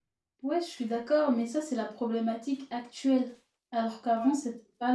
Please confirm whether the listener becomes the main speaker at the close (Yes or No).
No